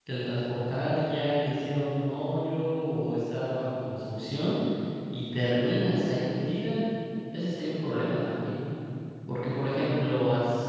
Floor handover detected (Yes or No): No